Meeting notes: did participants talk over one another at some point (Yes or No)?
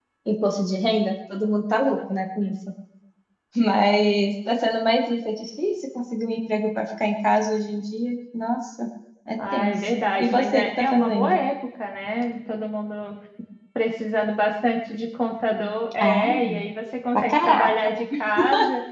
Yes